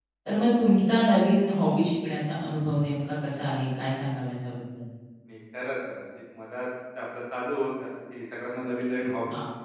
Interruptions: none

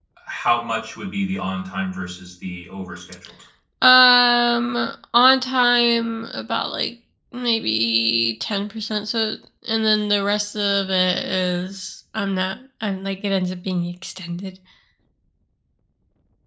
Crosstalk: none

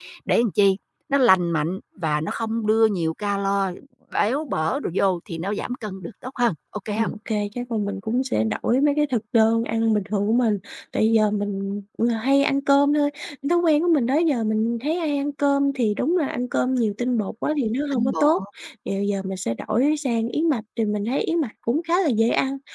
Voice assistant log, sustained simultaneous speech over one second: none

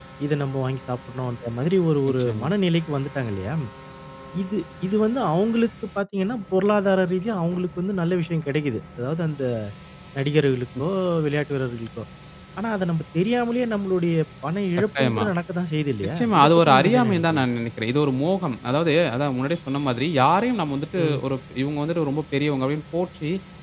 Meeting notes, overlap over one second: present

